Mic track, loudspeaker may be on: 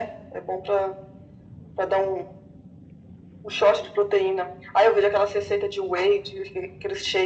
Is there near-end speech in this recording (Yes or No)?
No